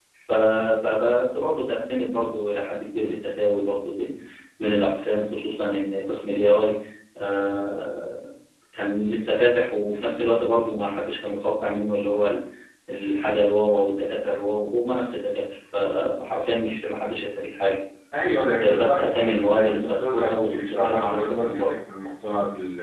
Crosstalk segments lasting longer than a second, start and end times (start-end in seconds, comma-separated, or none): 18.6-21.7